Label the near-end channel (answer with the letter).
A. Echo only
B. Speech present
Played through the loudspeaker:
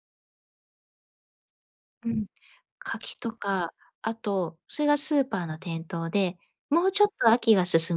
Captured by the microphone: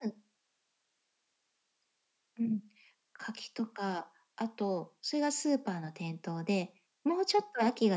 A